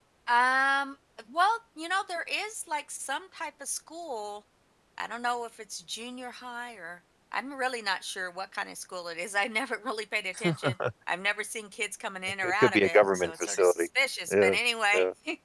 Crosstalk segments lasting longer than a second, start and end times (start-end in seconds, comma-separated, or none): 12.4-13.9